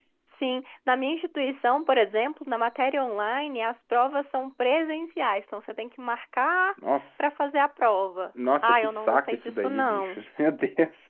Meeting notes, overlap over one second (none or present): present